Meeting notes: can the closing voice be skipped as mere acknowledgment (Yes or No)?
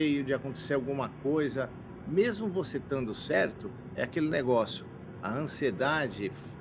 Yes